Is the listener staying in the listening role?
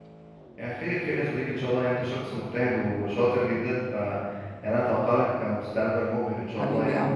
No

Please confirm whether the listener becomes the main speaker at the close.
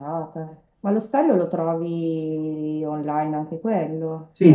Yes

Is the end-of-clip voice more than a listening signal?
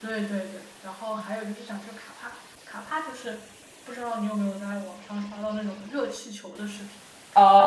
Yes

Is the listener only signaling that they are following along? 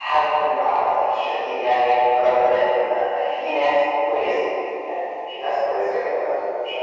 Yes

